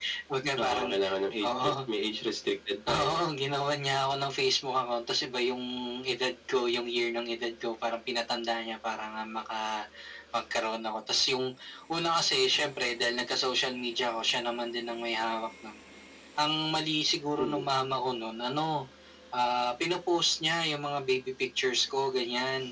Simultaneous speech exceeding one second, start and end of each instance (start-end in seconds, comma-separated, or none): none